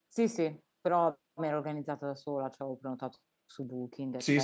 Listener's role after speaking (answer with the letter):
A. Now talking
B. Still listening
A